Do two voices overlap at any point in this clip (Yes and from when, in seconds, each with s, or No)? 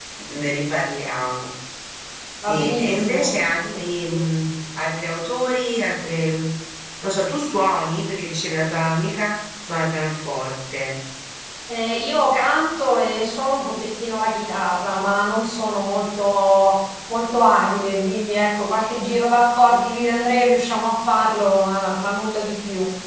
Yes, from 2.4 s